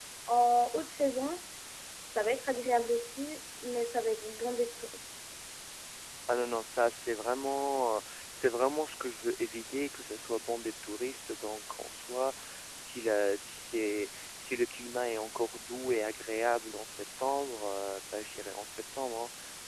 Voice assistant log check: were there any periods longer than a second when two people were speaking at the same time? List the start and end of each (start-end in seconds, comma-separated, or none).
none